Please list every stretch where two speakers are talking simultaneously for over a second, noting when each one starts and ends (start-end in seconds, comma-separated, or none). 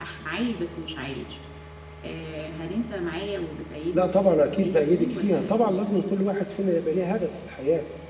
3.9-5.8